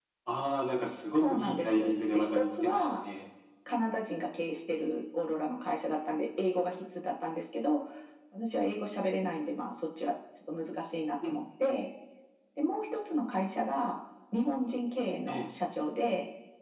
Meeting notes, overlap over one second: present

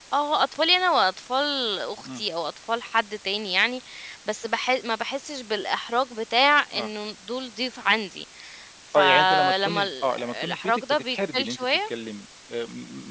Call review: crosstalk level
present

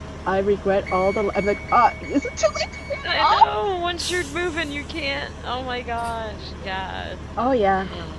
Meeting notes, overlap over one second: none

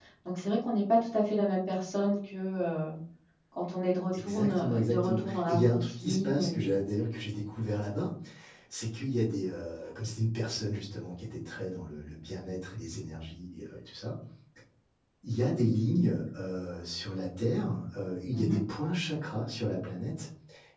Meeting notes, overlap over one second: present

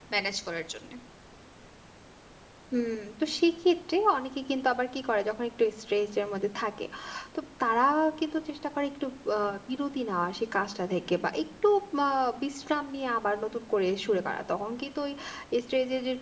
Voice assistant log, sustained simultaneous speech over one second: none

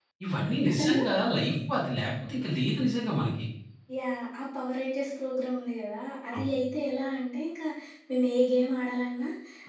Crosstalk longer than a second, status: none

